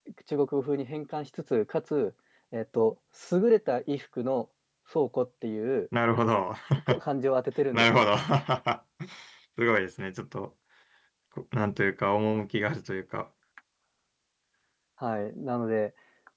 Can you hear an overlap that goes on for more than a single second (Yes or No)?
No